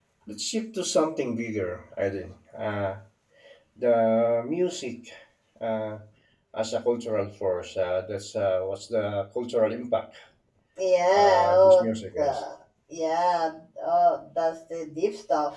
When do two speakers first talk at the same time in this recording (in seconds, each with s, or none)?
11.1 s